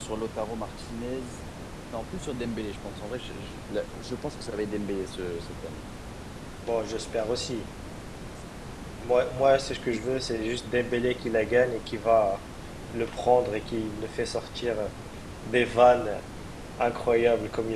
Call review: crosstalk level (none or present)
none